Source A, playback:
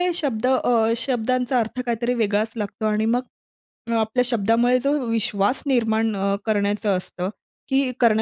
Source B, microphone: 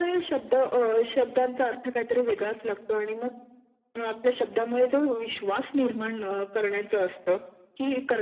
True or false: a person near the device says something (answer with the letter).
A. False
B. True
A